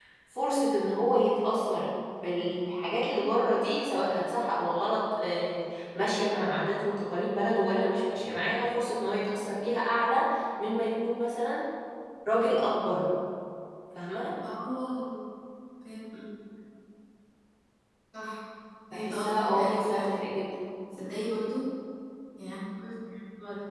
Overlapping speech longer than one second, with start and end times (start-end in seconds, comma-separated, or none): 18.9-20.3